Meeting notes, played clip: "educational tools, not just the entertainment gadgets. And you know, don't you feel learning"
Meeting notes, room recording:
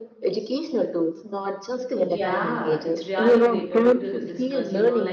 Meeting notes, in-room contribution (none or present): present